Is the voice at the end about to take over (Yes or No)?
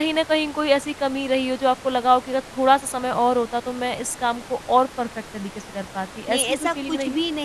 Yes